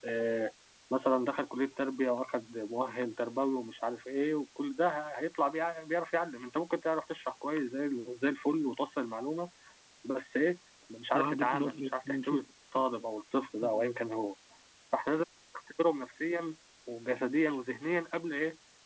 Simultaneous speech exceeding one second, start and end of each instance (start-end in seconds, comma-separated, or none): 11.1-12.4